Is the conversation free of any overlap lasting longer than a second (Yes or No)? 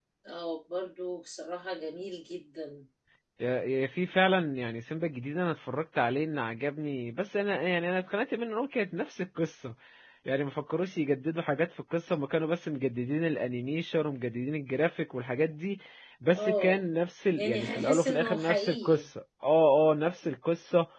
No